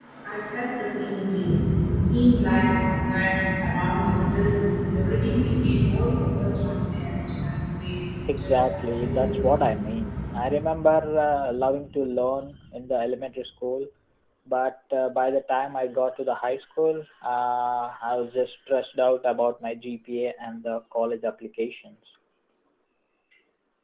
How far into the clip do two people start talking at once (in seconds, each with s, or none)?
8.3 s